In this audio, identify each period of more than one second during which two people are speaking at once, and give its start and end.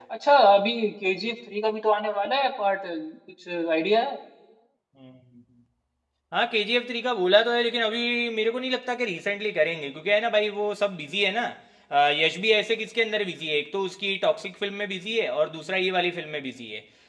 none

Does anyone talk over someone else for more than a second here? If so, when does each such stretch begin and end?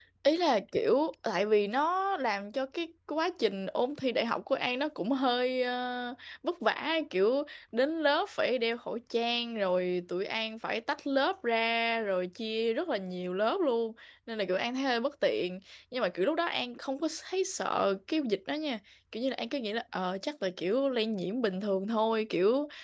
none

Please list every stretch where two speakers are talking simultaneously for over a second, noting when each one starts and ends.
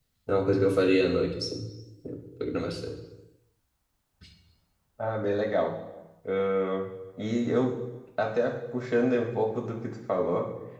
none

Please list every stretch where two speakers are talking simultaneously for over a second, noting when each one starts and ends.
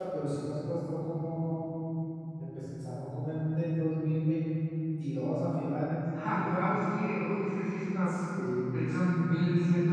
none

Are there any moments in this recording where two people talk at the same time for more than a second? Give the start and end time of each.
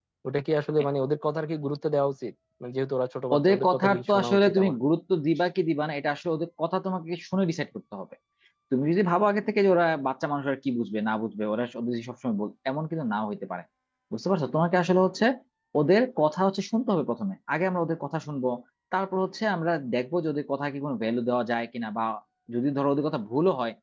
3.4-4.7

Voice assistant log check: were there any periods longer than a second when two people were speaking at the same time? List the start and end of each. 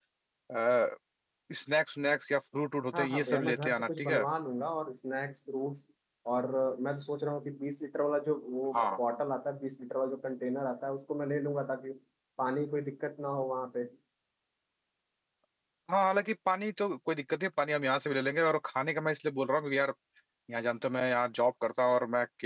2.9-4.2

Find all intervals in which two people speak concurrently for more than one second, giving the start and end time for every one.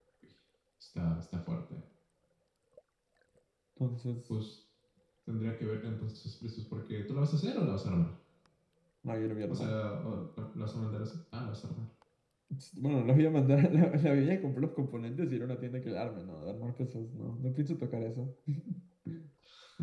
none

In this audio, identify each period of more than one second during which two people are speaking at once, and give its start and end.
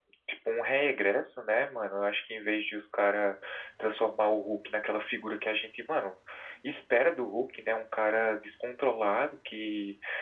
none

